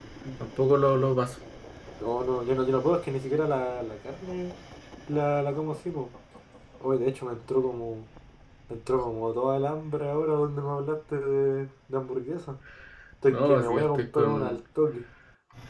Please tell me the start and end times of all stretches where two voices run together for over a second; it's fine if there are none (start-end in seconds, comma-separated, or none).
13.3-14.6